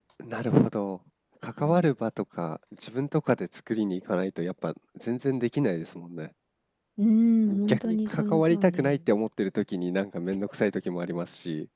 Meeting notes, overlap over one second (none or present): present